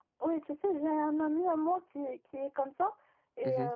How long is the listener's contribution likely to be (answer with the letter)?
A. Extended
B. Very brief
B